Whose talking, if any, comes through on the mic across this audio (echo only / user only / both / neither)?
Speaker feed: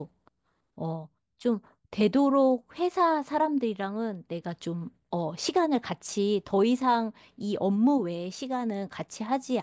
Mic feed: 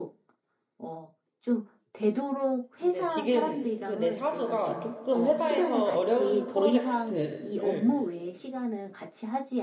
both